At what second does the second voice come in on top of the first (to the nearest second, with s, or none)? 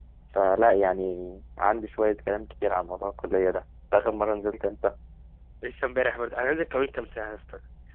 none